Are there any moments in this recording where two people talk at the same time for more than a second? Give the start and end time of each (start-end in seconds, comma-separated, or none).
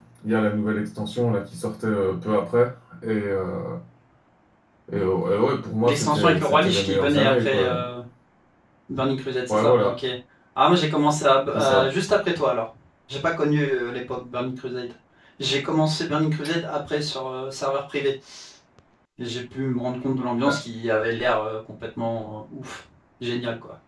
5.8-7.9